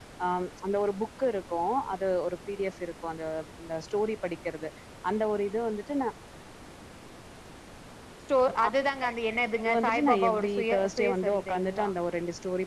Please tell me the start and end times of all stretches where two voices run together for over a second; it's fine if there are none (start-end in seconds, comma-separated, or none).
9.6-11.9